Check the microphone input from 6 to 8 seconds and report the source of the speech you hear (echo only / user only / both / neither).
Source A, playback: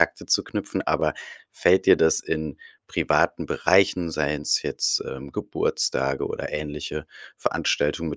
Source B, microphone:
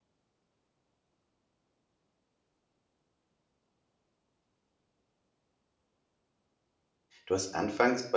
user only